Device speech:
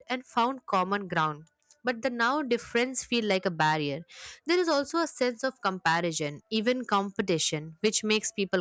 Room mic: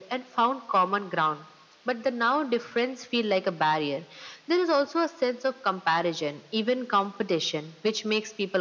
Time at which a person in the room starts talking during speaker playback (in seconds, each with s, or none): none